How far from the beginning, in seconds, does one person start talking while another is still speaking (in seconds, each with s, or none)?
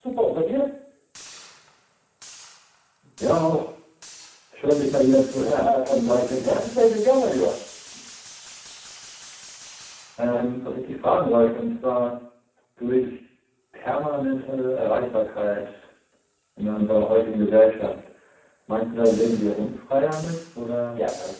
5.4 s